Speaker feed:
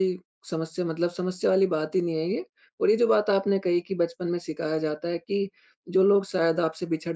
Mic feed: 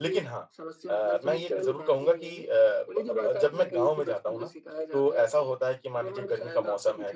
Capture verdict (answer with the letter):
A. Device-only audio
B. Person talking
B